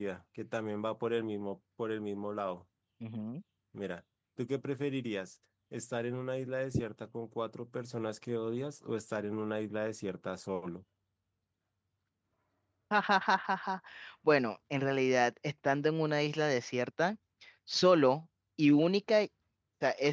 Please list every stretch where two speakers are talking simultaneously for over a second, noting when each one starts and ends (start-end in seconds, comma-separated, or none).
none